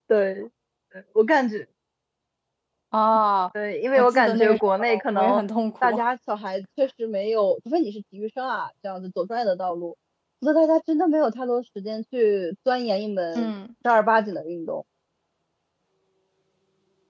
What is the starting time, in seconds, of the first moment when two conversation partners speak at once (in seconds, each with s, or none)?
4.0 s